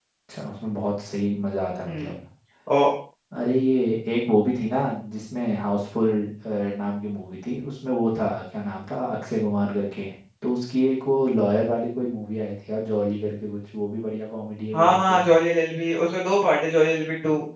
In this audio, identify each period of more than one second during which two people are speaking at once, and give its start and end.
none

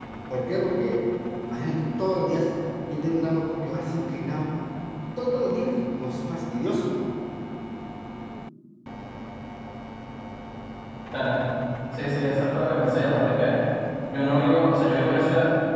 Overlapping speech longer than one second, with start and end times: none

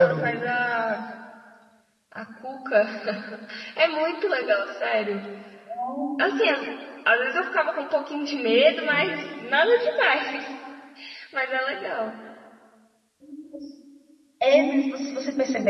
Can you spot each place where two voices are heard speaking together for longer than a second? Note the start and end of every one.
none

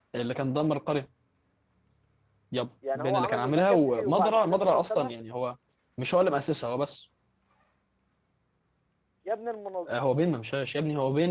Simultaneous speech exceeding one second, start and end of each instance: 3.0-5.1

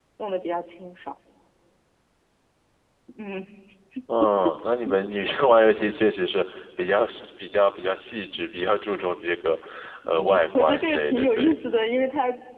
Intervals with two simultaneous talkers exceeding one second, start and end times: 10.1-11.5

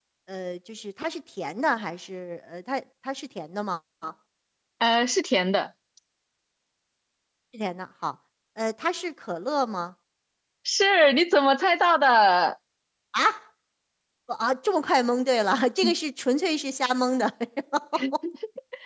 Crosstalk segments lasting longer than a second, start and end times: none

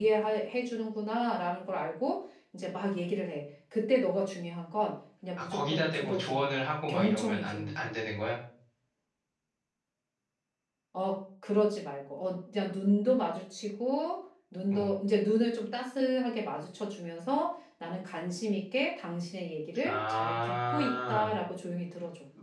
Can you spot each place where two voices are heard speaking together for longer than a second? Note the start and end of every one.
5.5-7.7, 19.9-21.3

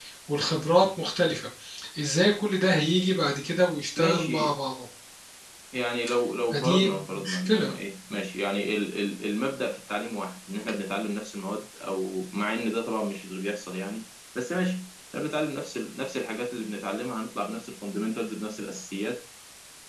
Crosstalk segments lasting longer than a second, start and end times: 6.5-7.7

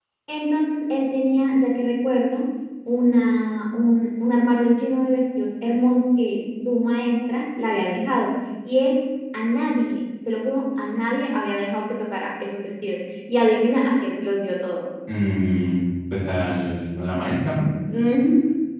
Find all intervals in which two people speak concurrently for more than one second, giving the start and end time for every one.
none

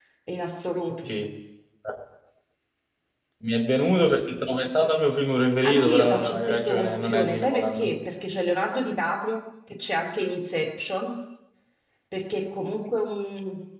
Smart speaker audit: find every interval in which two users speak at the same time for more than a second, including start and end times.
5.6-7.9

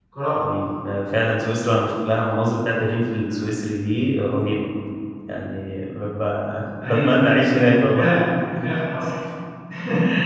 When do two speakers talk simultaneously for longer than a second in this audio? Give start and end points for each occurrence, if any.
6.8-8.1

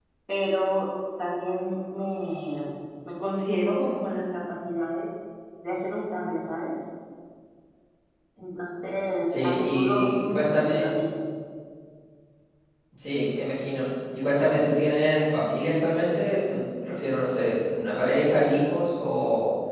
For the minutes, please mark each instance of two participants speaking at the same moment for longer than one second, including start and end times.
9.3-10.8

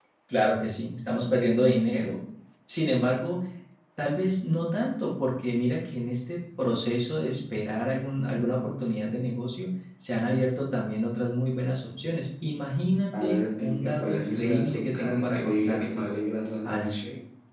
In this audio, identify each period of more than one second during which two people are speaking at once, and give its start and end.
13.2-16.0

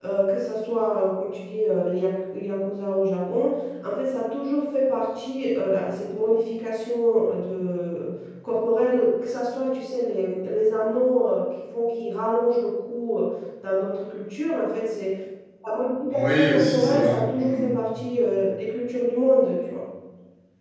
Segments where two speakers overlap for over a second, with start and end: 16.1-17.7

